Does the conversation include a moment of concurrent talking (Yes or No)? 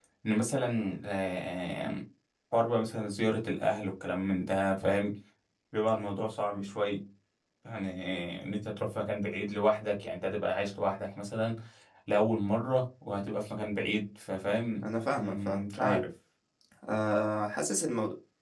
Yes